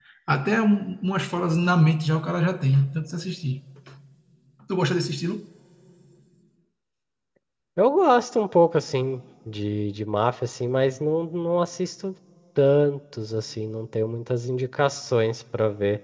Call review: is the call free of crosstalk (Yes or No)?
Yes